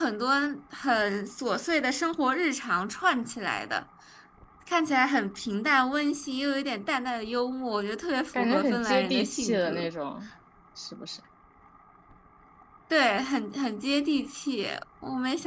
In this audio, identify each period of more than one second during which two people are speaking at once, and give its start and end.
8.3-9.9

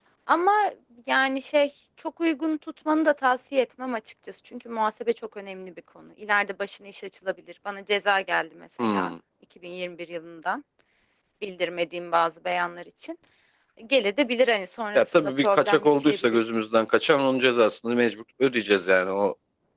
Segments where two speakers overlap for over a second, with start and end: 14.9-16.5

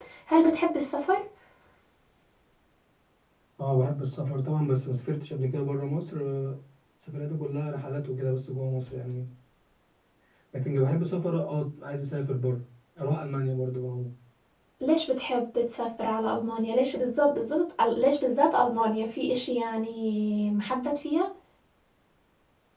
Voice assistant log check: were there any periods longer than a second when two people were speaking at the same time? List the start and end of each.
none

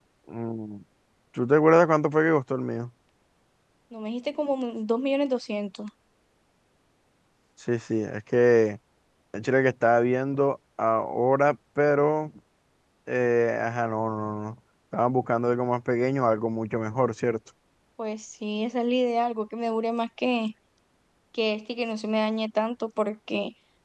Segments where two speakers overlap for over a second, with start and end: none

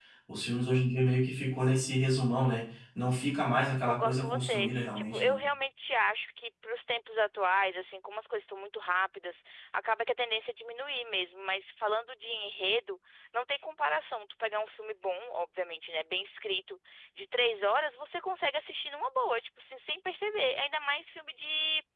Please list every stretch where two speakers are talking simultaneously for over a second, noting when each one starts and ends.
3.8-5.4

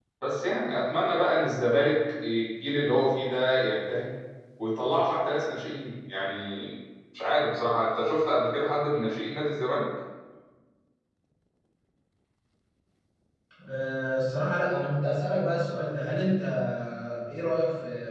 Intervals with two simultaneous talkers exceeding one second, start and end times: none

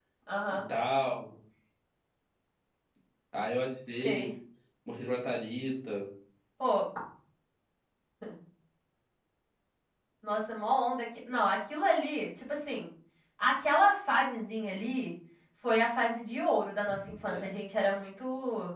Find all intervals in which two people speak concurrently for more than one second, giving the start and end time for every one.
none

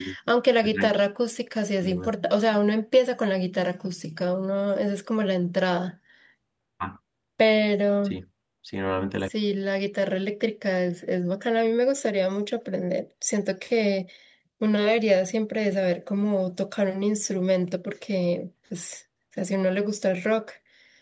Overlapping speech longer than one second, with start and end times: none

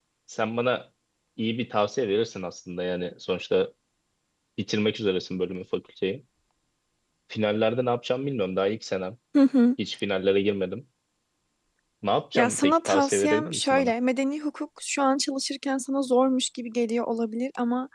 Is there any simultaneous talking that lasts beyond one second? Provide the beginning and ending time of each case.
12.4-13.9

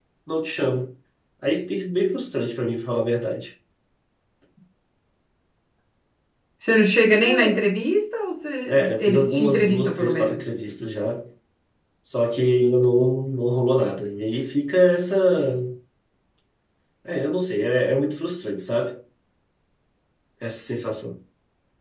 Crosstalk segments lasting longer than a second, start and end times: 8.7-10.4

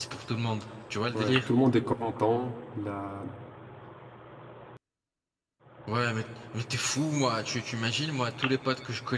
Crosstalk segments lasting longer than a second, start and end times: none

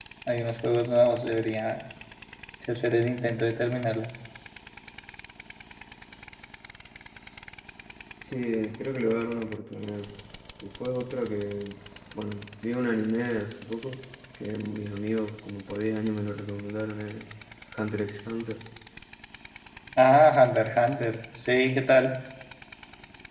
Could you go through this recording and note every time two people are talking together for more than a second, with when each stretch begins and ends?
none

